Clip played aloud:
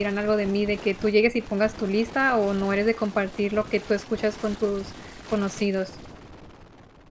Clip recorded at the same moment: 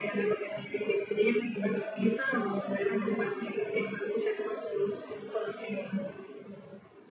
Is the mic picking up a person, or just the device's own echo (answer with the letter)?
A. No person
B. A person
A